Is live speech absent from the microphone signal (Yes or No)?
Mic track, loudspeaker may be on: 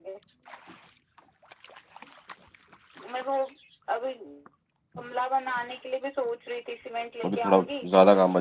No